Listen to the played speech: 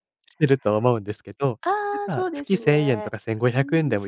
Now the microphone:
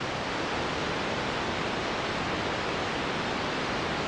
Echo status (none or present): none